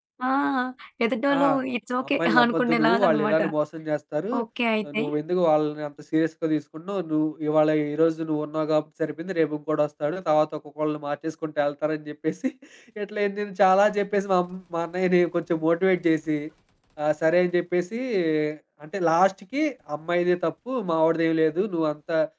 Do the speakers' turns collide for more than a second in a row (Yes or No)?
Yes